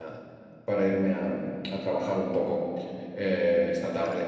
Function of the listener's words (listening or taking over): listening